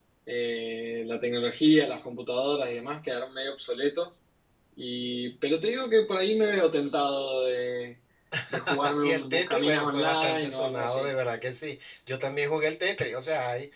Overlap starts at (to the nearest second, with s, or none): 9 s